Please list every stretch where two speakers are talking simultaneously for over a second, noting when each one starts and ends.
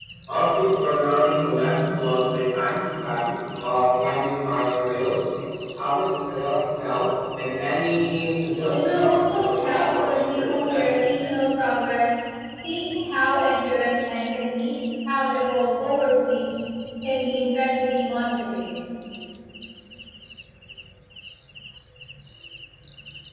8.7-11.2

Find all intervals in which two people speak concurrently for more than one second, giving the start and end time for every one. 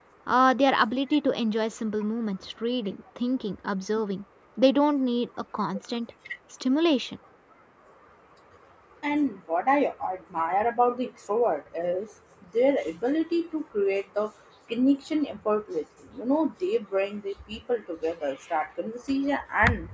none

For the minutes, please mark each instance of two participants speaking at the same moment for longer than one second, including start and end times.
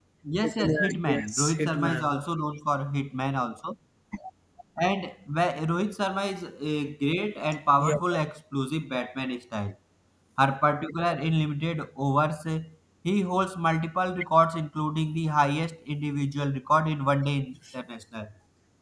0.6-2.1

